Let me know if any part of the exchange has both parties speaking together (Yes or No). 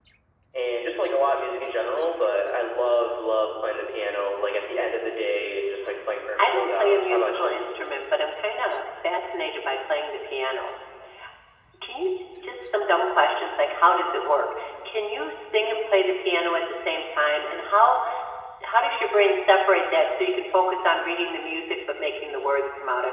Yes